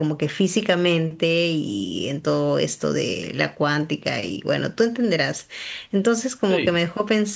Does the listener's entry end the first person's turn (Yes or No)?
No